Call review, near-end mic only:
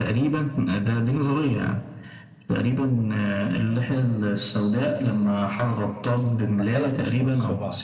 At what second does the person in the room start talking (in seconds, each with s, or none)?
6.4 s